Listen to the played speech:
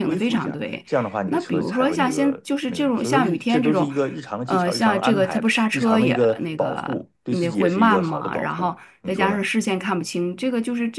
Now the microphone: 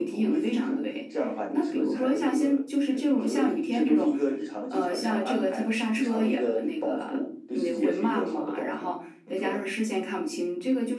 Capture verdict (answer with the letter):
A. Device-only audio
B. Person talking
A